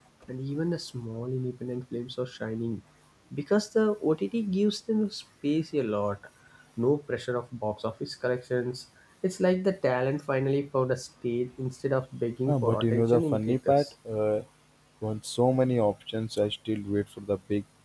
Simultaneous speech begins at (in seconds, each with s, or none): 12.5 s